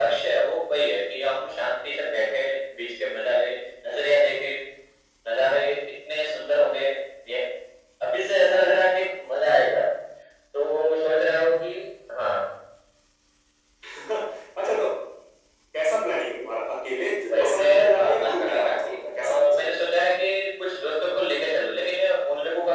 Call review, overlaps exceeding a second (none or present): present